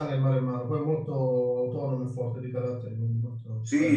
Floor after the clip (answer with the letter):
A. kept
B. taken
B